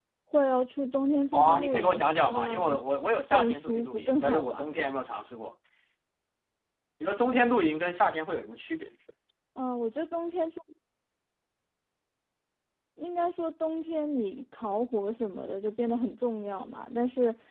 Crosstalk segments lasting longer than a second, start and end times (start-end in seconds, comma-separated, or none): 1.3-2.8, 3.3-4.8